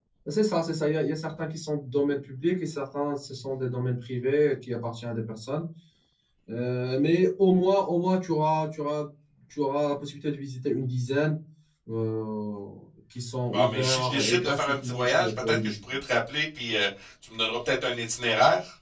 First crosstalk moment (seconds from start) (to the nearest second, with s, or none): 14 s